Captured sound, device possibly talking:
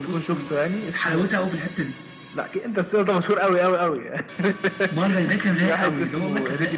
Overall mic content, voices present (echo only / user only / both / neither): echo only